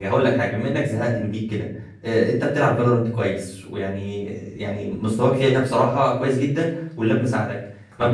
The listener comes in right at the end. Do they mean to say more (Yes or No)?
No